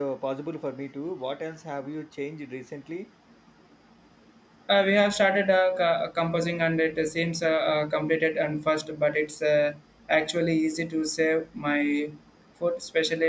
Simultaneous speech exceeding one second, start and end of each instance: none

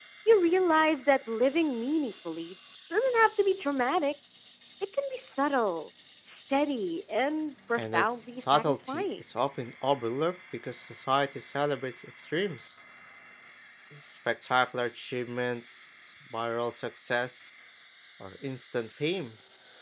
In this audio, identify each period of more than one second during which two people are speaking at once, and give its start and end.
7.8-9.1

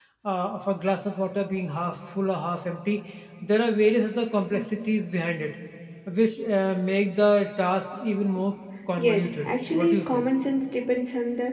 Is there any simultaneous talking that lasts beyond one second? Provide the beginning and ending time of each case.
9.0-10.2

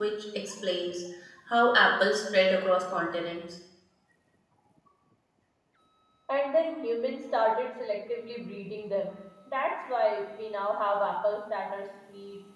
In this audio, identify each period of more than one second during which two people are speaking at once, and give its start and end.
none

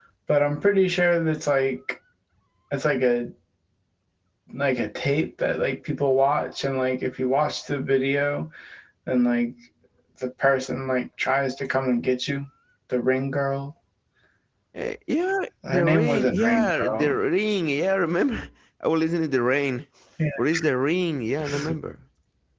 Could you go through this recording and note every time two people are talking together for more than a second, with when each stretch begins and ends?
15.7-17.2

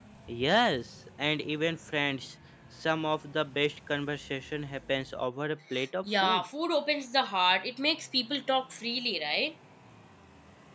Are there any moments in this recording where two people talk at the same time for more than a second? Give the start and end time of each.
none

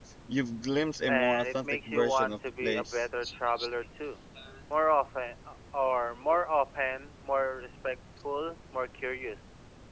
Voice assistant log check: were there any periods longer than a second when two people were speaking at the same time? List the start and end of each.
1.1-3.1

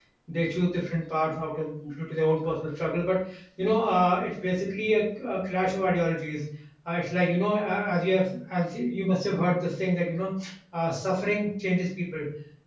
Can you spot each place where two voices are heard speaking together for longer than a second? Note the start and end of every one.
none

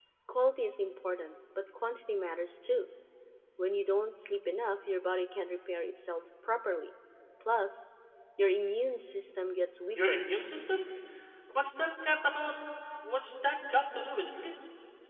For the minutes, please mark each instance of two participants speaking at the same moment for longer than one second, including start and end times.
none

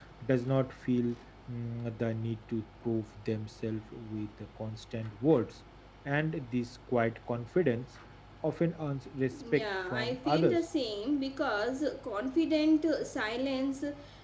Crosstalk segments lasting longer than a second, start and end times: 9.3-10.7

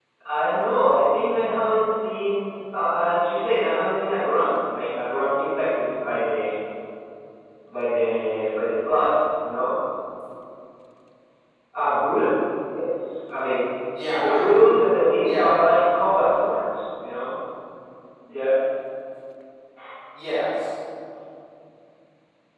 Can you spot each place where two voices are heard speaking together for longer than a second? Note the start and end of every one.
none

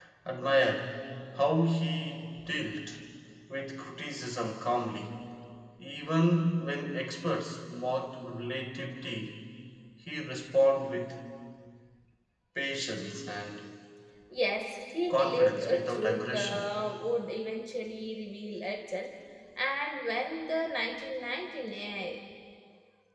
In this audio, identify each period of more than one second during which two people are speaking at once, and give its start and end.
15.1-16.7

